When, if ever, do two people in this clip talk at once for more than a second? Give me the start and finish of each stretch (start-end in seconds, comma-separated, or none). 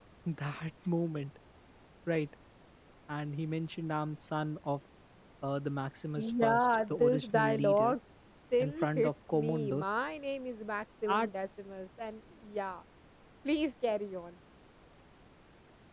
6.2-8.0, 8.6-9.9